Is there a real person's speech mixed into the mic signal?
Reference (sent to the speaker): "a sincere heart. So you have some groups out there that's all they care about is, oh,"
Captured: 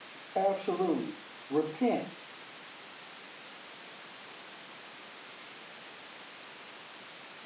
Yes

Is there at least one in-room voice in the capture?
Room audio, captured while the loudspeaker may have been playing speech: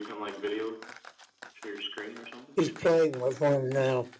Yes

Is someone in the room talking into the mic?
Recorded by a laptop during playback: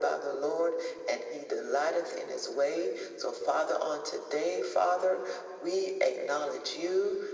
No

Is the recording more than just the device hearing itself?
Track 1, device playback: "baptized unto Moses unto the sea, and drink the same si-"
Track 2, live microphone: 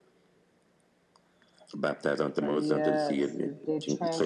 Yes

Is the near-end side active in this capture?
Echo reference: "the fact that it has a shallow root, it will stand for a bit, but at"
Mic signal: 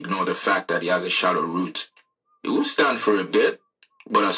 No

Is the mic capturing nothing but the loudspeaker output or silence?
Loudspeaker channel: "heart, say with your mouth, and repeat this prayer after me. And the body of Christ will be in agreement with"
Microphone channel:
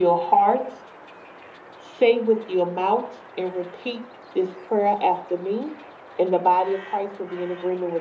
Yes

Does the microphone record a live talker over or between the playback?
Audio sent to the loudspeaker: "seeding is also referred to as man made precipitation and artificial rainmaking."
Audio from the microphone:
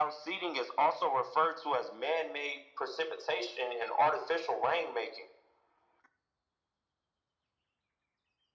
No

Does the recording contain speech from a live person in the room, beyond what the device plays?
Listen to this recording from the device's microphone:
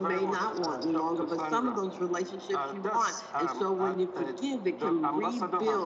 No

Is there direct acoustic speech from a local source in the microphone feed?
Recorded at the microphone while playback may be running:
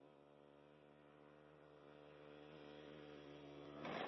No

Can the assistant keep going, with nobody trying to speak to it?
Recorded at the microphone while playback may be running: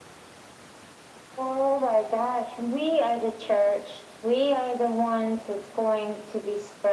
Yes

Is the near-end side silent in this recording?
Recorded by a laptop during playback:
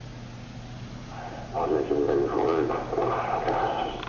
Yes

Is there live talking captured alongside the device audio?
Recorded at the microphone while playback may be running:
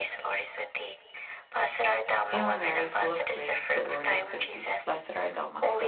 Yes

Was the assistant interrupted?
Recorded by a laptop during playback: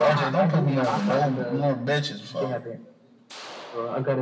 No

